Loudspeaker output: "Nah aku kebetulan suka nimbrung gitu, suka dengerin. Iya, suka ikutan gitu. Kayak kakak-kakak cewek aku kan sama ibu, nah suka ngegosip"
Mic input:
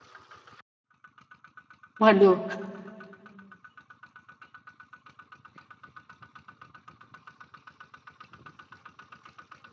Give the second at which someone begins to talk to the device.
2 s

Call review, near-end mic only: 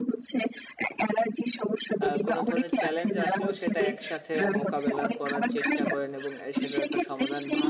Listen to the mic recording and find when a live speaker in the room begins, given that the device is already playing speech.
2 s

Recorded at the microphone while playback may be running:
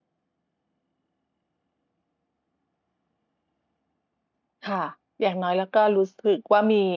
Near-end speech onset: 5 s

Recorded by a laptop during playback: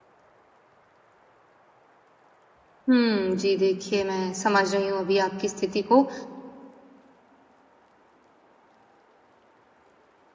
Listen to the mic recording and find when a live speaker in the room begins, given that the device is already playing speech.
3 s

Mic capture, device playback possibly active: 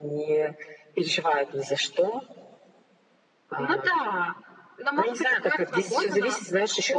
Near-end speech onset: none

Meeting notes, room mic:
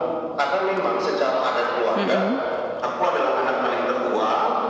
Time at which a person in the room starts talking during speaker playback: 2 s

